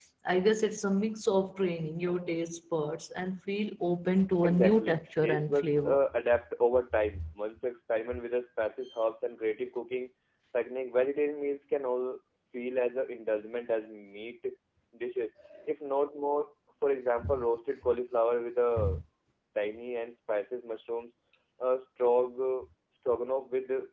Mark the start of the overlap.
4.4 s

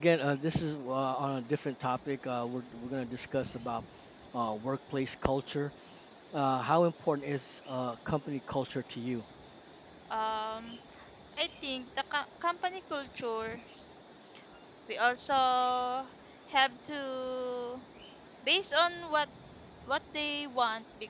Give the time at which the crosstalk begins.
none

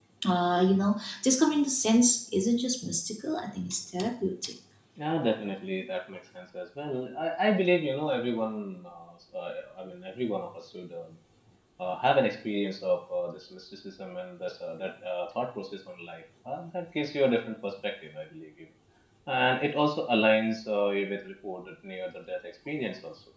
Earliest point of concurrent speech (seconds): none

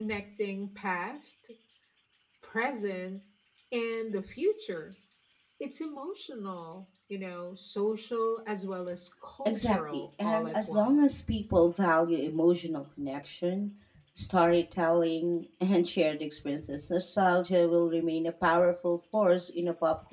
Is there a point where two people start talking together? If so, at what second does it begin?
9.4 s

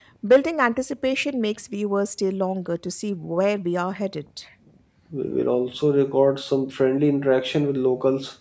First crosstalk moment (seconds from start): none

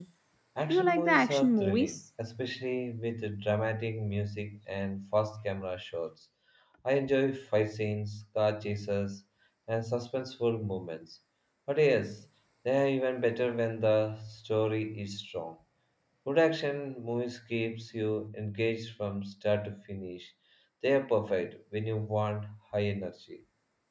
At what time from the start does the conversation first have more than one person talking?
0.7 s

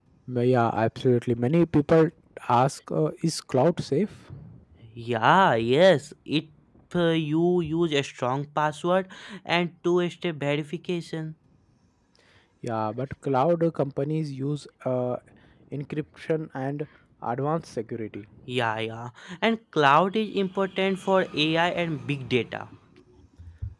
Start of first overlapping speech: none

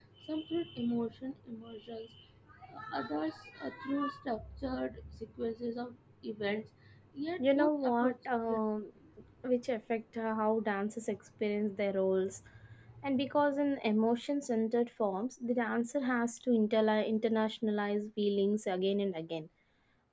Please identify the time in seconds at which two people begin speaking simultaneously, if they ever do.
7.4 s

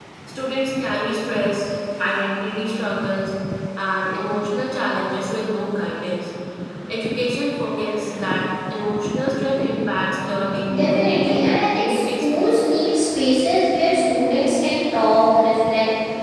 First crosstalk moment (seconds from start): 10.7 s

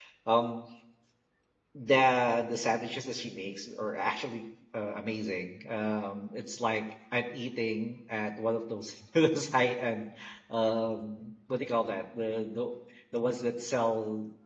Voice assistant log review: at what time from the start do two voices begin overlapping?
none

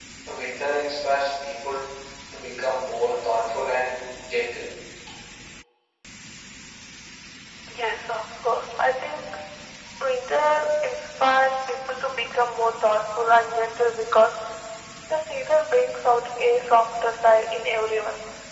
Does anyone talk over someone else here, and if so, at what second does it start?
none

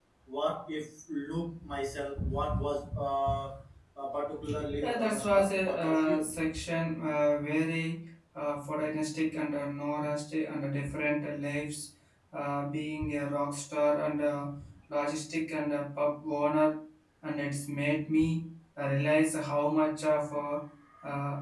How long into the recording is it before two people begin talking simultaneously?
4.8 s

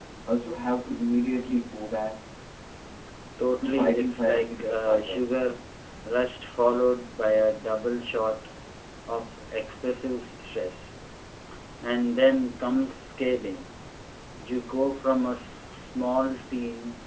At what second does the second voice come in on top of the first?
3.6 s

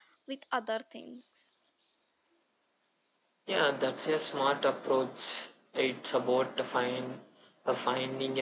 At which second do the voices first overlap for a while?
none

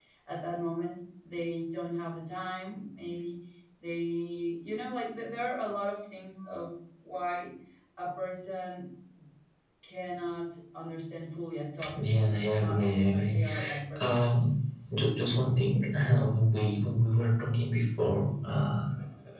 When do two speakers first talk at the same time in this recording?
11.8 s

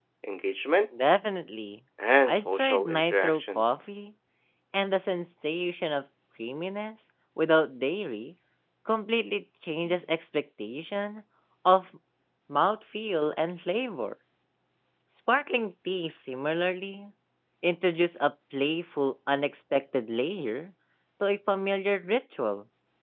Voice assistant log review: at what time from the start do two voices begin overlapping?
2.2 s

